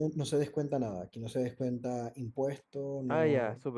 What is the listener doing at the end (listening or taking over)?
taking over